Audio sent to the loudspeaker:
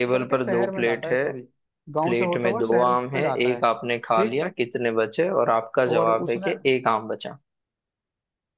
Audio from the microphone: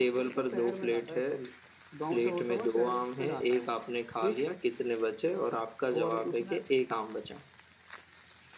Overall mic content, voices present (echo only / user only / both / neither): echo only